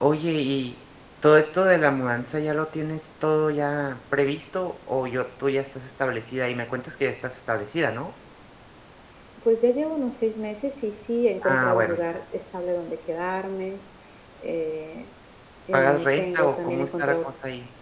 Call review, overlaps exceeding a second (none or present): present